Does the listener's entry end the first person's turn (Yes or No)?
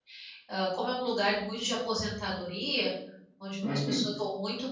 No